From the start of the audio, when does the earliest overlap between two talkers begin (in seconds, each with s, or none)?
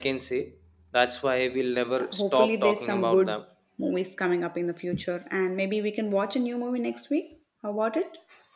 2.0 s